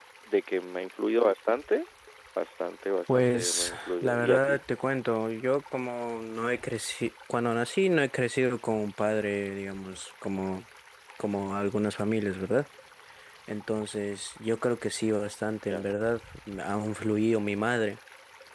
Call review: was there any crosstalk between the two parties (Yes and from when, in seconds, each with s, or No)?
Yes, from 3.1 s